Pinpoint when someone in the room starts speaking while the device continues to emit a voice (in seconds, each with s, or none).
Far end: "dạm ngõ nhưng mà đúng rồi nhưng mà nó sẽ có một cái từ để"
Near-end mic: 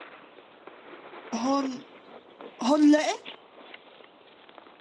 1.3 s